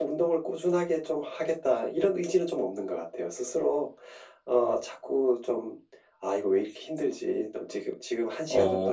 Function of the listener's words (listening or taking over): listening